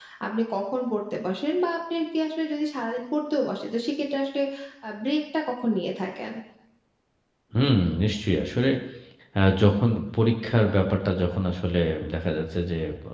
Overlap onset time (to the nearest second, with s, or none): none